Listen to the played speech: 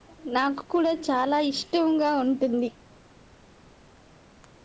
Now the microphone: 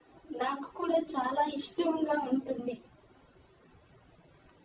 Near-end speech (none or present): none